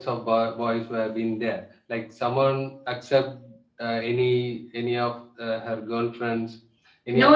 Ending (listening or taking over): taking over